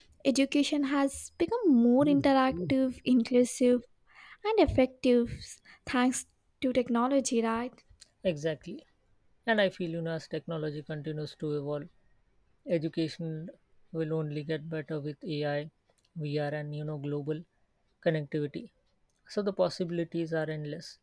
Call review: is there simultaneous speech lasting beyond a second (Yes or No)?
No